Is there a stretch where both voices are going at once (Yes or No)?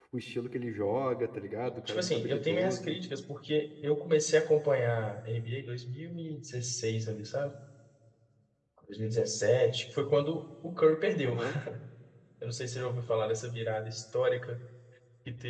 Yes